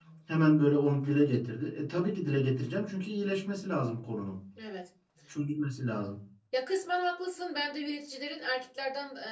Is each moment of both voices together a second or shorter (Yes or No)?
Yes